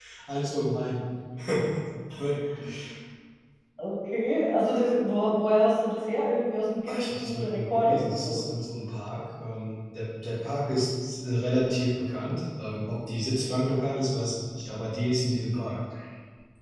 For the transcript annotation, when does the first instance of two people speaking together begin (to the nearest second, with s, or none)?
7 s